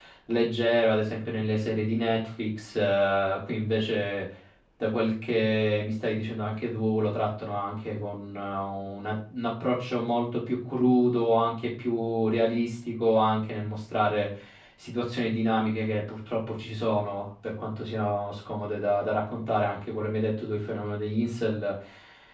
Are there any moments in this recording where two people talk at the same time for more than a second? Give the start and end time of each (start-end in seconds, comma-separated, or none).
none